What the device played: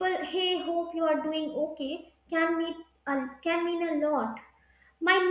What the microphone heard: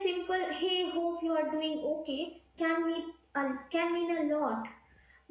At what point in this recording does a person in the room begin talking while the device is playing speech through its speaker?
none

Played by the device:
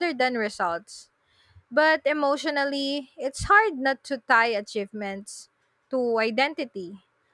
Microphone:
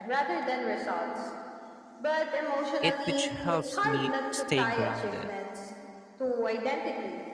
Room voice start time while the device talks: 2.8 s

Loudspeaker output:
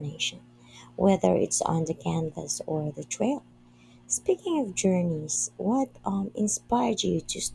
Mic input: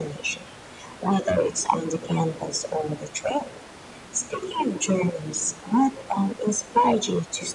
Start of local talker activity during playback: none

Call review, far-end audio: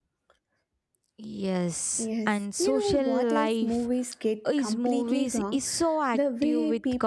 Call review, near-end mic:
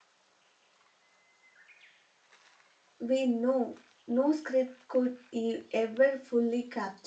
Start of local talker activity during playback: 3.0 s

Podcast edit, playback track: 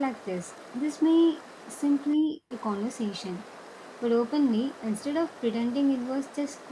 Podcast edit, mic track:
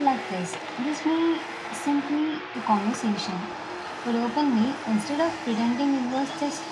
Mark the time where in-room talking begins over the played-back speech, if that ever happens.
none

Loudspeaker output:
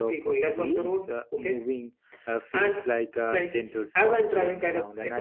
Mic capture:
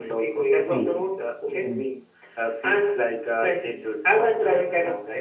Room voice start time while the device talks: 0.7 s

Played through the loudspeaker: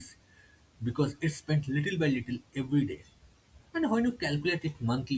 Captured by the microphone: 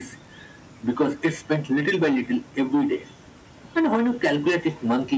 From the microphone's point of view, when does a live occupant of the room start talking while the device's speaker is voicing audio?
none

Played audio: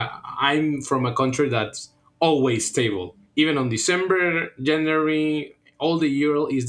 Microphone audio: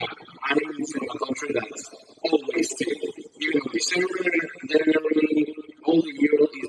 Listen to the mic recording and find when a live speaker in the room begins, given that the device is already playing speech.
none

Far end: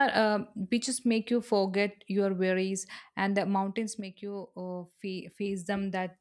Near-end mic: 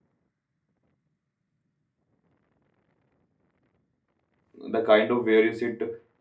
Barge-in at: 4.5 s

